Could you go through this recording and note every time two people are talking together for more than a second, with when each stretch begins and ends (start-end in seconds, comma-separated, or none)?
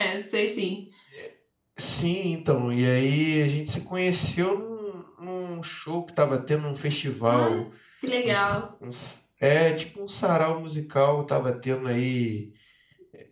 none